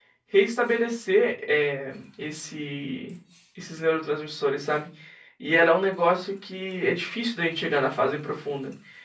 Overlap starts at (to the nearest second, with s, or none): none